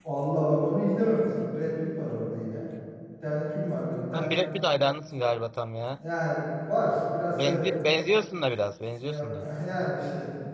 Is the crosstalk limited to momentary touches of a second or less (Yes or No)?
Yes